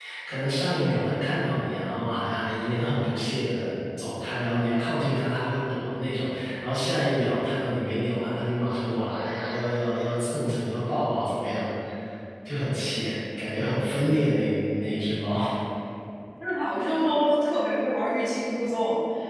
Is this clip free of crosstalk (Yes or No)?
Yes